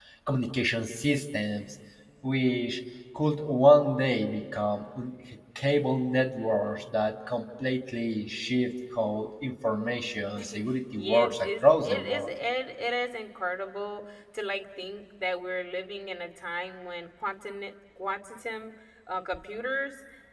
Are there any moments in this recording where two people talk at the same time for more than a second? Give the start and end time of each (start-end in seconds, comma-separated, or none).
10.9-12.3